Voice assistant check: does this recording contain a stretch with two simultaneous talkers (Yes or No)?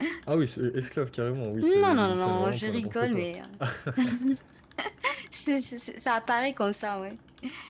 Yes